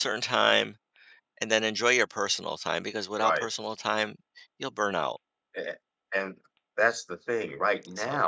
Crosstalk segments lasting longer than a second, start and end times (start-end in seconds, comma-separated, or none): none